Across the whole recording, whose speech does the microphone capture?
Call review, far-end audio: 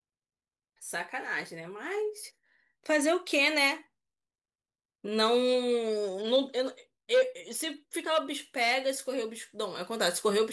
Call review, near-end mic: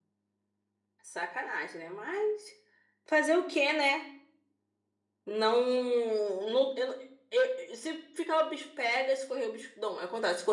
echo only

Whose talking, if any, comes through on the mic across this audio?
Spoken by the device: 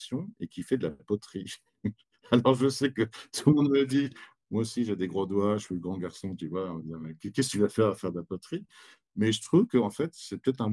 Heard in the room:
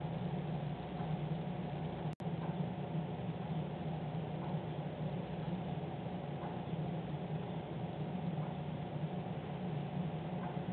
neither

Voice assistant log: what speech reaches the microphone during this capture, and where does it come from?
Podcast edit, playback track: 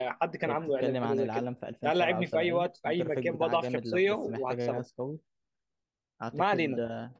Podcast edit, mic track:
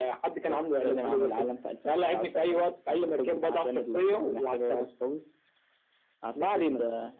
echo only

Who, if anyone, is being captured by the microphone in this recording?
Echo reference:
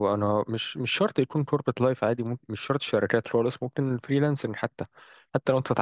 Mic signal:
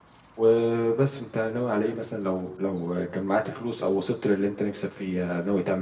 user only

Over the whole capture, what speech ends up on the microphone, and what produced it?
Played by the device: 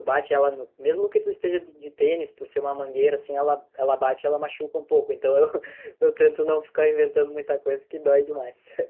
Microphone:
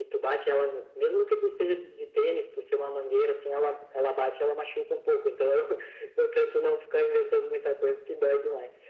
echo only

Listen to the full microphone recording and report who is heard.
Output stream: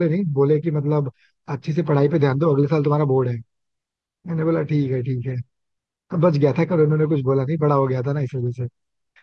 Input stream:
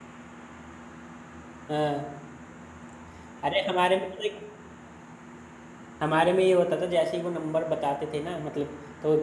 user only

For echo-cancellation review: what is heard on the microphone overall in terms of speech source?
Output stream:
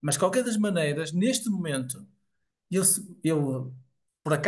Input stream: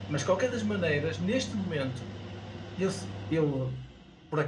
echo only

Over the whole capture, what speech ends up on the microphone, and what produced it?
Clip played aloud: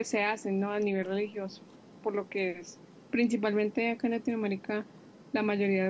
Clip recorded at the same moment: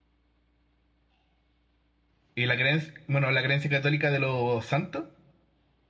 user only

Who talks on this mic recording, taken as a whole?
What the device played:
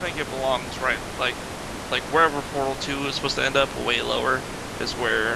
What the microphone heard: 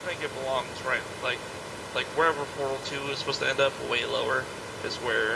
echo only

